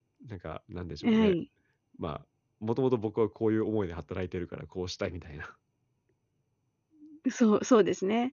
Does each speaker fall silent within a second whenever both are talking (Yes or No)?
Yes